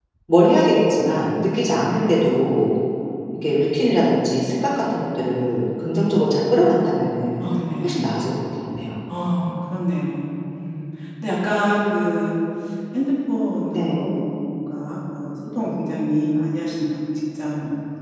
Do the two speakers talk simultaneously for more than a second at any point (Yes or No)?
No